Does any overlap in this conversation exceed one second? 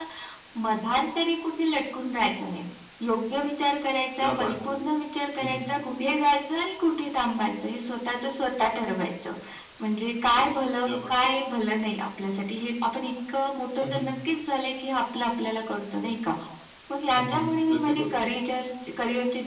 Yes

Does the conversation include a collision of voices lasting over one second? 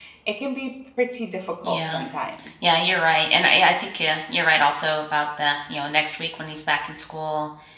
No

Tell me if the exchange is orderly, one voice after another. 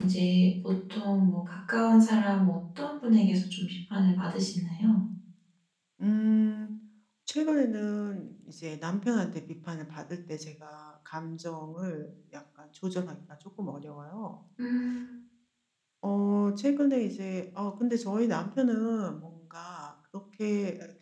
Yes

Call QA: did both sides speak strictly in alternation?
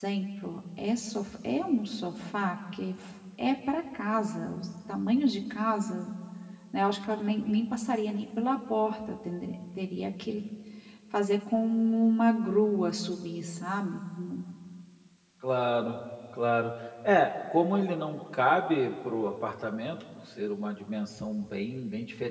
Yes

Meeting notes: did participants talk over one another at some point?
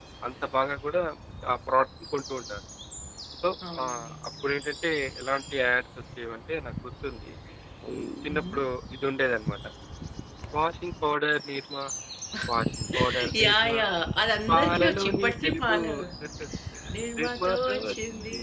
Yes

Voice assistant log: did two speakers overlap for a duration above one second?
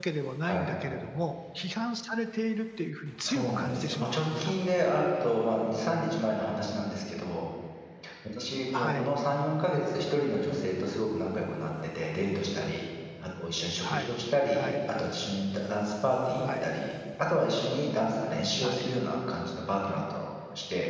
Yes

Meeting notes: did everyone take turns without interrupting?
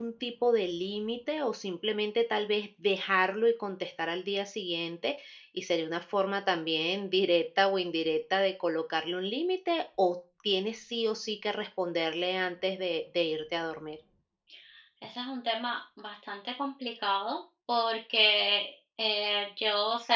Yes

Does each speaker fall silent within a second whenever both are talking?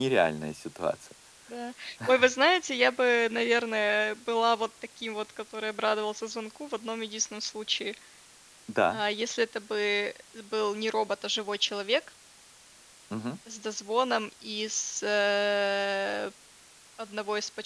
Yes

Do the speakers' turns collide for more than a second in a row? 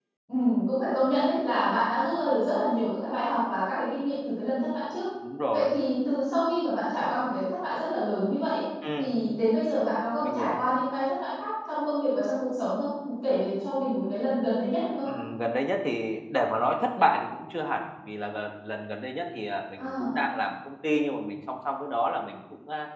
No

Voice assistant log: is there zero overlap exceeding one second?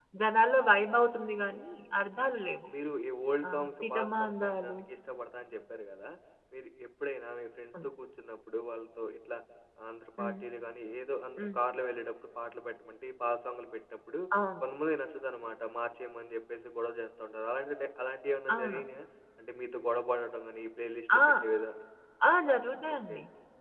No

